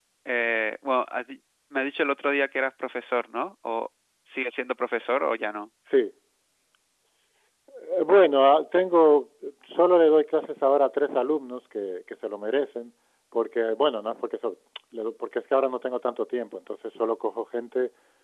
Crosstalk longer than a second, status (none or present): none